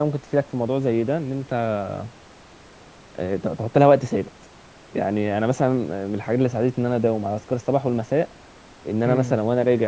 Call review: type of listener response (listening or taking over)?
listening